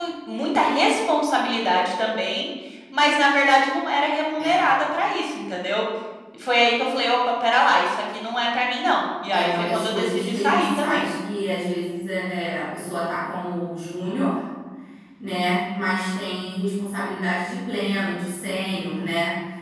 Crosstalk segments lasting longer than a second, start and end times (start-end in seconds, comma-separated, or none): 9.3-11.1